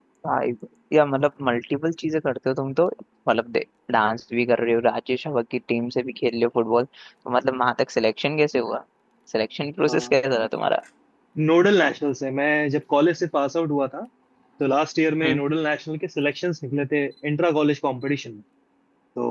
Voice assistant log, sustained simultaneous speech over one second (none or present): none